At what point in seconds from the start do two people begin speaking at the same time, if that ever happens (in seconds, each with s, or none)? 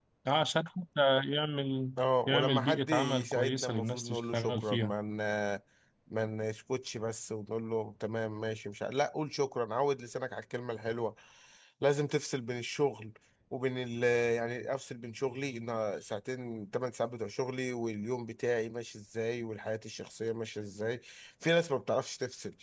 2.3 s